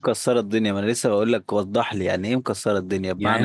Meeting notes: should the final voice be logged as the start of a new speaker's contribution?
Yes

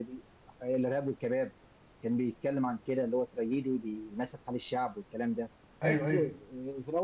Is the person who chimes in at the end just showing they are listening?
Yes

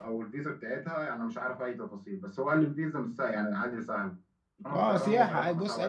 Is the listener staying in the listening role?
No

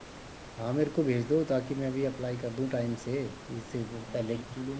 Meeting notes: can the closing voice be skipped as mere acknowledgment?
No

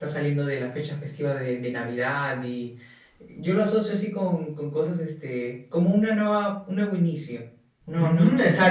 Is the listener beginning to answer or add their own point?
Yes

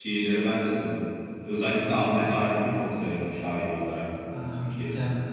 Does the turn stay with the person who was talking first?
No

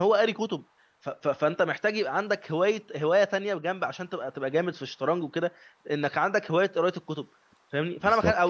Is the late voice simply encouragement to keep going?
Yes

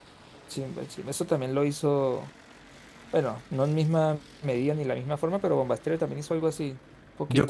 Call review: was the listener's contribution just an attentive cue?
No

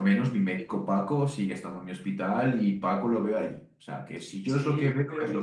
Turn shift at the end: Yes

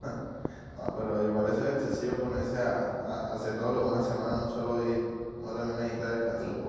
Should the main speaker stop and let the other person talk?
Yes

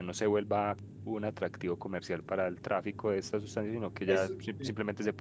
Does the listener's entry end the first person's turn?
No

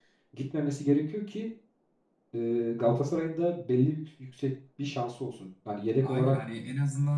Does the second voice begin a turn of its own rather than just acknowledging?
Yes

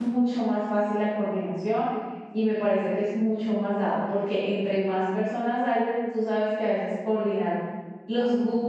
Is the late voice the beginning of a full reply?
No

